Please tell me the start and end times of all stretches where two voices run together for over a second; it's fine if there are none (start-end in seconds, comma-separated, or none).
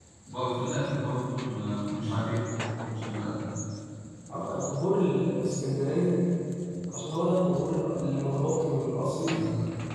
none